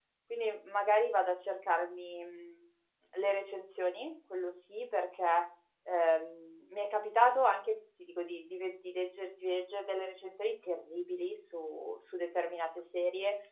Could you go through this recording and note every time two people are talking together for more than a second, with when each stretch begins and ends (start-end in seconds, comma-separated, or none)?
none